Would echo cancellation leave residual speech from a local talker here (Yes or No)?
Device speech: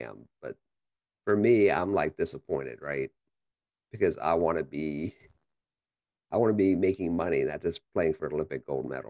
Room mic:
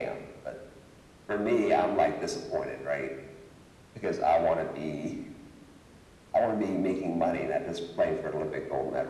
No